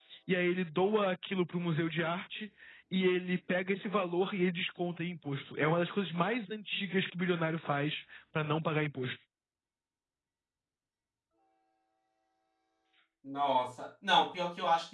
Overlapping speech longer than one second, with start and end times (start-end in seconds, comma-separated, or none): none